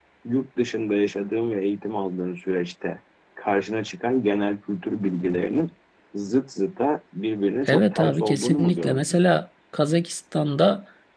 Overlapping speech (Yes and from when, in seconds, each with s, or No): Yes, from 7.7 s